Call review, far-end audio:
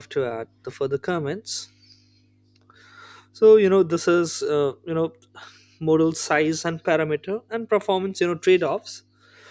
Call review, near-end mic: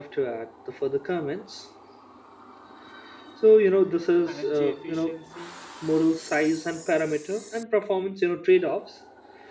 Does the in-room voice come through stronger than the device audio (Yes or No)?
No